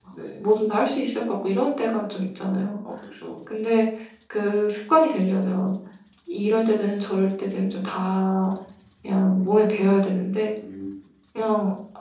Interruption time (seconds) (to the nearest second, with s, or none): none